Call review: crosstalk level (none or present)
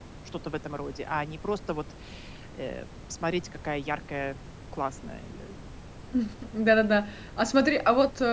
none